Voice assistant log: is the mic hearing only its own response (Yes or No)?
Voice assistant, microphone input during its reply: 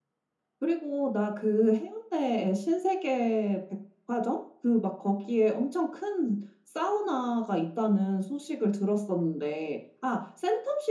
Yes